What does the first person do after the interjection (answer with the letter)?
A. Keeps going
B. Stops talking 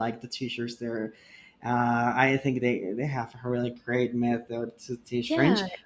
A